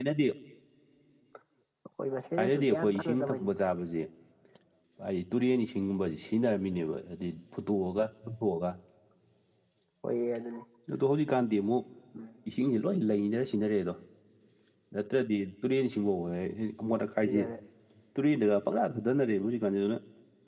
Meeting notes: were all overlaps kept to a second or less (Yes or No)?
No